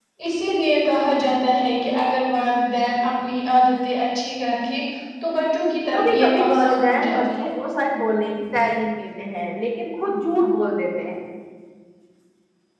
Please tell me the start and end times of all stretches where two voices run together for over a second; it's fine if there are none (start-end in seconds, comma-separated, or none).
5.9-7.5